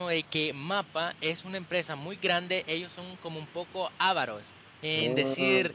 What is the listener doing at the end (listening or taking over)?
listening